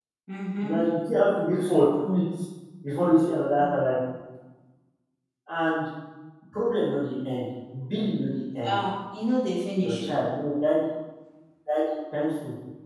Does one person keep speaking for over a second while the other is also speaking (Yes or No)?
No